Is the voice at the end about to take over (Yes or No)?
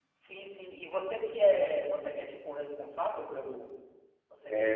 Yes